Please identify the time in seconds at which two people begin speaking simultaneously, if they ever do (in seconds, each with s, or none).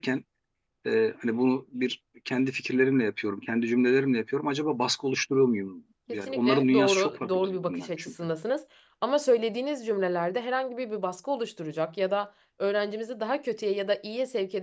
6.1 s